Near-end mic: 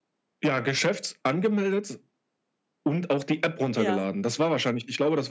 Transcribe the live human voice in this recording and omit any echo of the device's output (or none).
Ja.